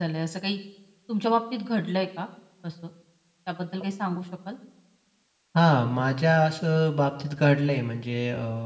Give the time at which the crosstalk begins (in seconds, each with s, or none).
none